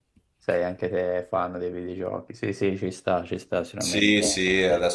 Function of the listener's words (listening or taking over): taking over